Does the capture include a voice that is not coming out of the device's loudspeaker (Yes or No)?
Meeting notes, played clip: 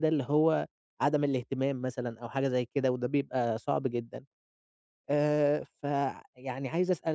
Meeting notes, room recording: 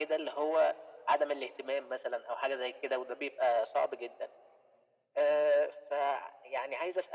No